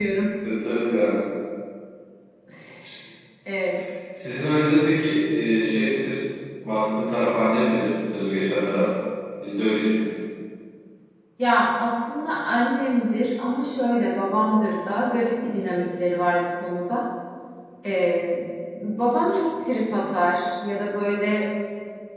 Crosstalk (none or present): none